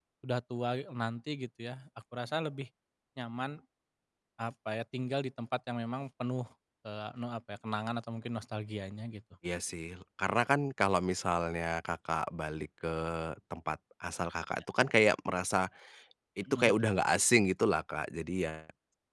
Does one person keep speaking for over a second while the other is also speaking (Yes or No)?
No